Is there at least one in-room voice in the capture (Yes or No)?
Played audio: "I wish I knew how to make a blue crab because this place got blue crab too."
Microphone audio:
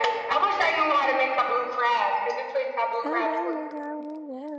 Yes